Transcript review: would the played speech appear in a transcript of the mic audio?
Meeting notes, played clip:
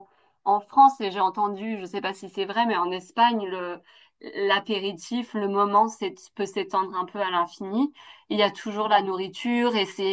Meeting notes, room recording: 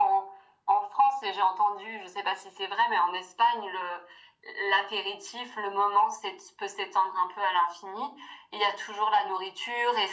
Yes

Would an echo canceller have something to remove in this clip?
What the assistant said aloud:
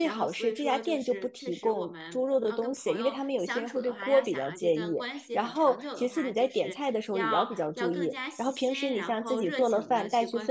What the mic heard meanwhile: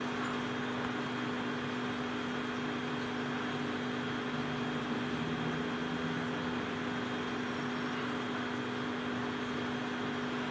No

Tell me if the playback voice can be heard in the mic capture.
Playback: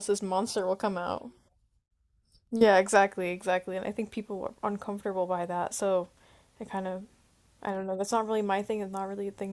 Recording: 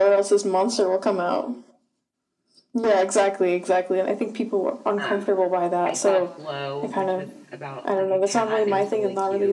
Yes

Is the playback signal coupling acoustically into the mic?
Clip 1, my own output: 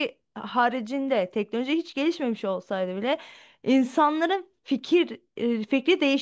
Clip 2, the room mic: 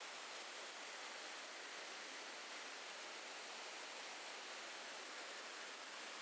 No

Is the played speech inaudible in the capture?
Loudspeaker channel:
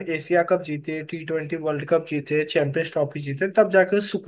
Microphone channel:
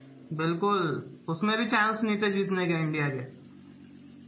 Yes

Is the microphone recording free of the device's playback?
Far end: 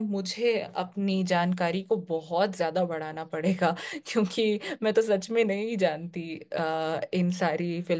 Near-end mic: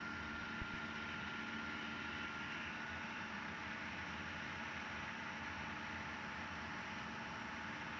Yes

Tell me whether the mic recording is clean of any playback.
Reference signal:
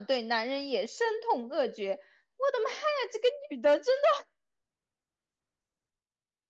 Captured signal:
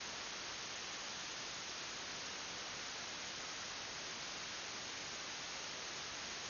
Yes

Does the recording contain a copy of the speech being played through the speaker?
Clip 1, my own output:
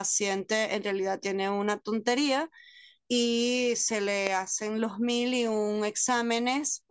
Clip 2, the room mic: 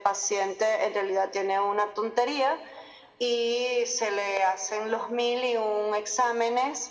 Yes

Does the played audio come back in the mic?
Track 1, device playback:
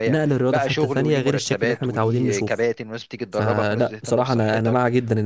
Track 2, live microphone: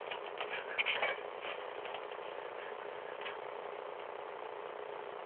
No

